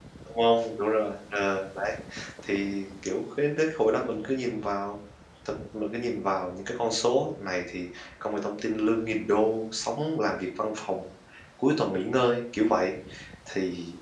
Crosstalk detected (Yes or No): No